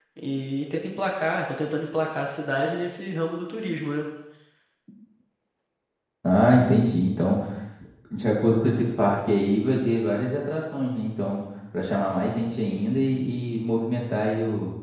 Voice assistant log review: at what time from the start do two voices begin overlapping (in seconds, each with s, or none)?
none